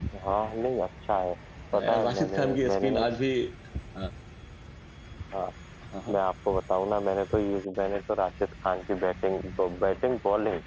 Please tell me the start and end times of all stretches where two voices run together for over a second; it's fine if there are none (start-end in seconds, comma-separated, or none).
1.7-3.0